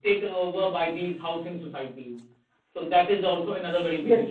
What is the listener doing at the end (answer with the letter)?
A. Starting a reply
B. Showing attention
A